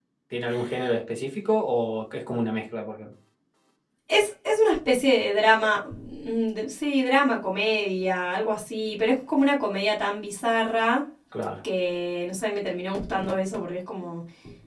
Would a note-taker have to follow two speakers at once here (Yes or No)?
No